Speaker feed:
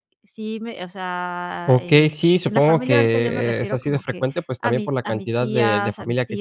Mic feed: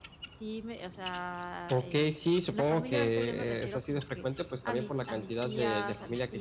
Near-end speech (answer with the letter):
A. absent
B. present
A